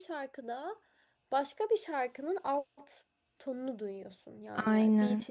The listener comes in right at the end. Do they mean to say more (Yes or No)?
No